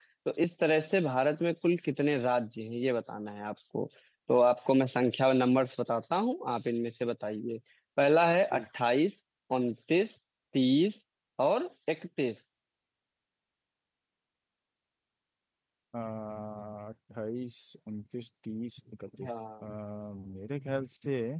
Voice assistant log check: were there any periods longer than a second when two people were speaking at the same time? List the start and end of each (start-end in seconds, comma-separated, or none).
none